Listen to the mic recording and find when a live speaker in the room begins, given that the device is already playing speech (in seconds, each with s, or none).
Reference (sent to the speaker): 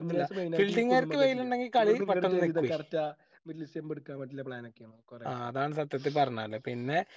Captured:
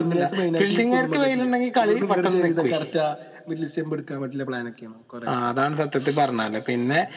none